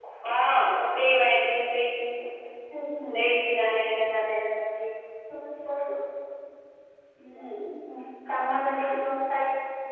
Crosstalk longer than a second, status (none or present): none